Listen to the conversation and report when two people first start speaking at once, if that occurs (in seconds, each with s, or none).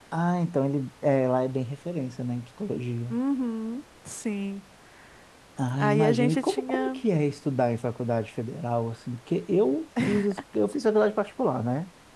5.8 s